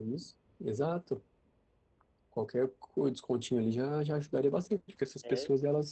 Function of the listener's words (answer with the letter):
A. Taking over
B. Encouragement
B